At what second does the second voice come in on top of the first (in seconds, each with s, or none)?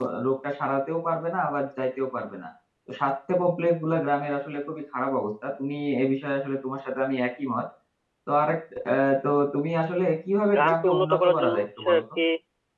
10.5 s